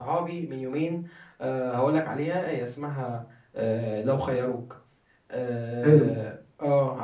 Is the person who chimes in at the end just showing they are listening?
Yes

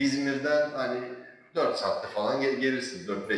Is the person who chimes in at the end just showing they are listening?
Yes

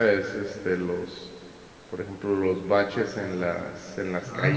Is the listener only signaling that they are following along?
Yes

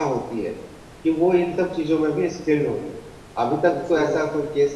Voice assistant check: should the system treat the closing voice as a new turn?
No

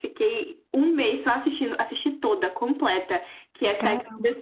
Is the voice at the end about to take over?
No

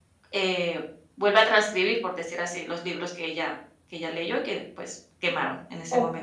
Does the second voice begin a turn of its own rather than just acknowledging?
Yes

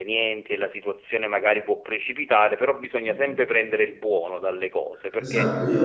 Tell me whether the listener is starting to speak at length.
Yes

